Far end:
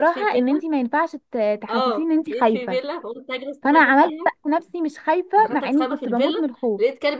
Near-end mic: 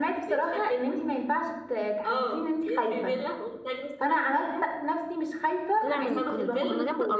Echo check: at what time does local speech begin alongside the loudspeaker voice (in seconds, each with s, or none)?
5.8 s